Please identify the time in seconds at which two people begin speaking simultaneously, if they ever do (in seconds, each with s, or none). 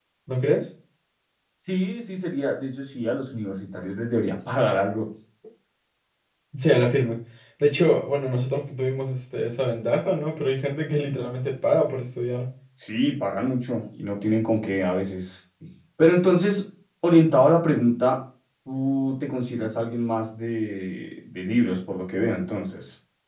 none